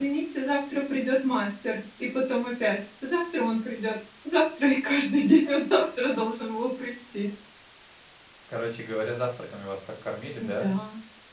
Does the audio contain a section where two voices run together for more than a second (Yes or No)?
No